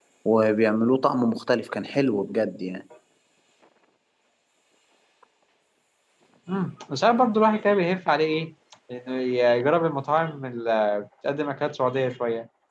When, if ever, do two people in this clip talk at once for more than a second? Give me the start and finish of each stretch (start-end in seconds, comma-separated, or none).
none